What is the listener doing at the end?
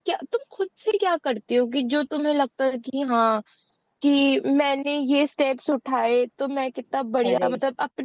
listening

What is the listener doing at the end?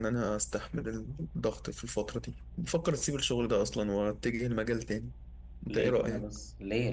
taking over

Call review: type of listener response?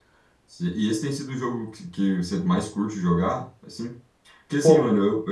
listening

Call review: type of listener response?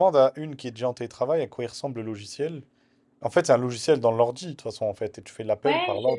taking over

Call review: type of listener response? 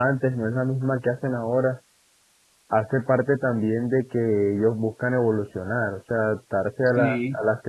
listening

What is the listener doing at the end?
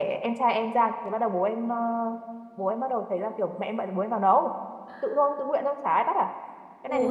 taking over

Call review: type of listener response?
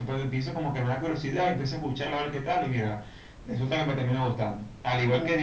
listening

